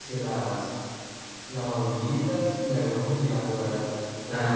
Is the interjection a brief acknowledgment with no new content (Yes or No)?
No